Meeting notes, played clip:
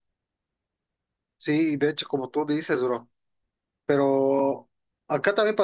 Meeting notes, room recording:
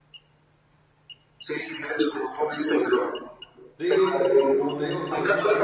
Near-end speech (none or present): present